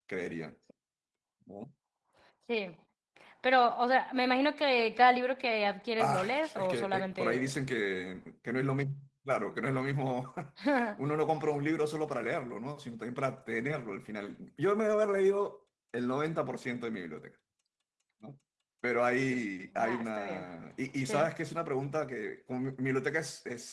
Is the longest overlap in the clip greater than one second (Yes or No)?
Yes